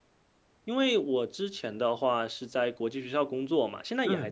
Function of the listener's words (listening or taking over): listening